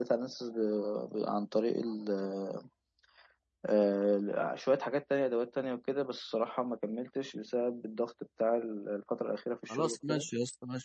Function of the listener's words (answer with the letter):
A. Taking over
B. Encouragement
A